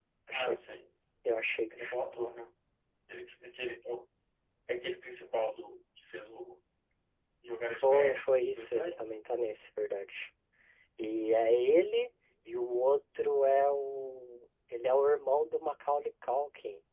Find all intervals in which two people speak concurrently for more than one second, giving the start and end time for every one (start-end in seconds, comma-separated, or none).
7.7-9.0